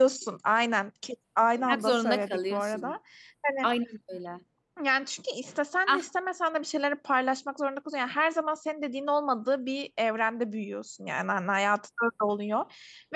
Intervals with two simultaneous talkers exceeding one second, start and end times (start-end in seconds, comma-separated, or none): 1.6-2.9